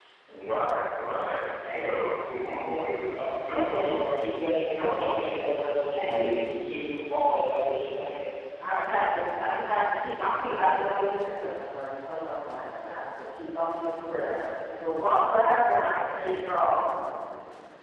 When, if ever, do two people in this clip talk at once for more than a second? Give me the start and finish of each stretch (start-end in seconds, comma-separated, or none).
2.7-4.1